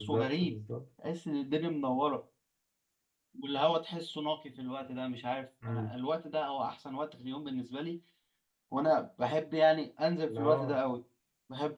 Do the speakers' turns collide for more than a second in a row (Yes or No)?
No